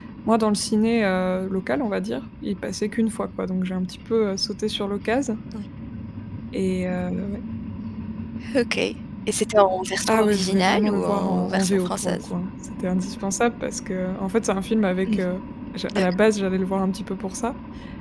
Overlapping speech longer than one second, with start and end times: 10.1-12.3

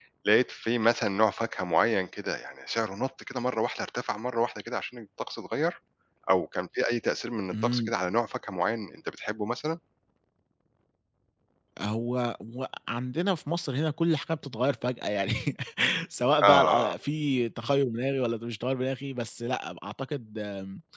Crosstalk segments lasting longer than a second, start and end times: none

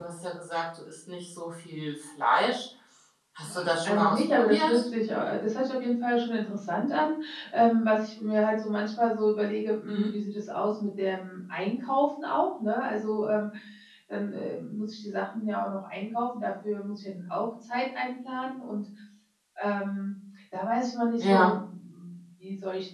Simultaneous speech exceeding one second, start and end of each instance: 3.4-4.8

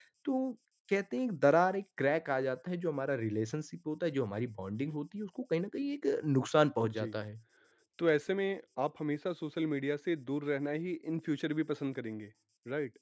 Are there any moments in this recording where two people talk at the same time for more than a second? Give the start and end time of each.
none

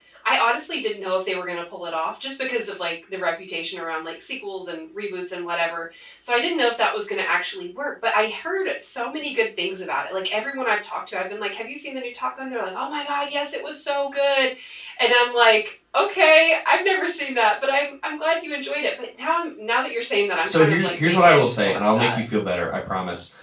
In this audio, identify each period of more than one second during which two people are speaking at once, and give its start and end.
20.4-22.2

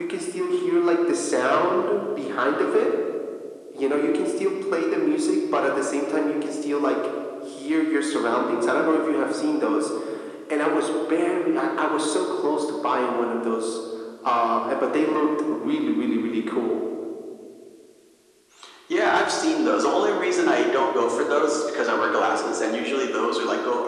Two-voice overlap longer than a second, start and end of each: none

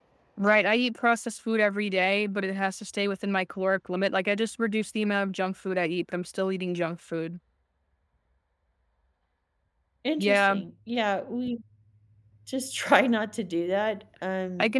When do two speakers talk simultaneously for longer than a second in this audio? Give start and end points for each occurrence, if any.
none

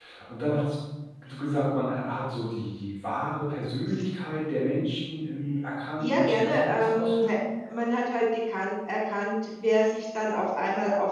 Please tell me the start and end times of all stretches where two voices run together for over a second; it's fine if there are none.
6.0-7.3

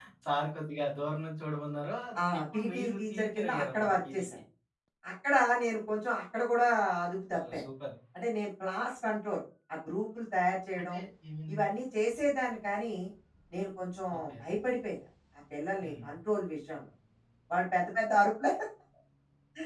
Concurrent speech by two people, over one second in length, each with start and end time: 2.4-4.3

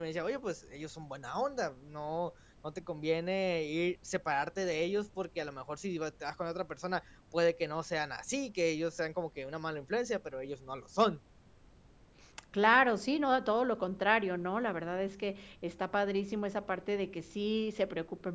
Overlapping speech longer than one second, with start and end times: none

